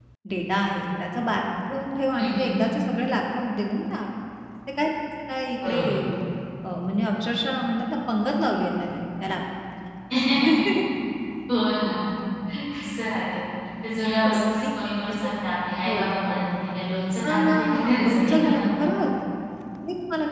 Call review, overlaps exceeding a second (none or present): present